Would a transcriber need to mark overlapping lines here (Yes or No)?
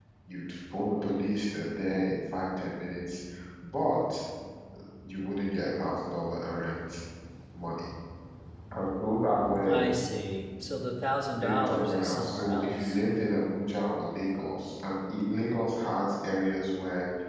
Yes